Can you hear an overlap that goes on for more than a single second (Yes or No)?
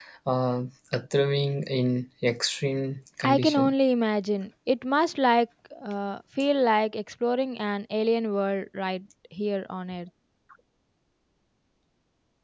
No